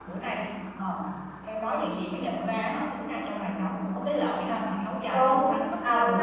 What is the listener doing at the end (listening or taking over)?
taking over